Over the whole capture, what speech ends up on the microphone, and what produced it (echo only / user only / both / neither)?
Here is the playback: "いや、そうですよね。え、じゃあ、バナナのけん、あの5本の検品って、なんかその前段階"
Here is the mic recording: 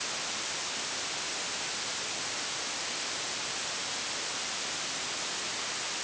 neither